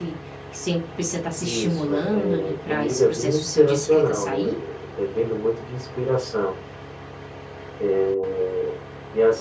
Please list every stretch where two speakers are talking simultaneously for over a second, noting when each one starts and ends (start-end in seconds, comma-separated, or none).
1.4-4.6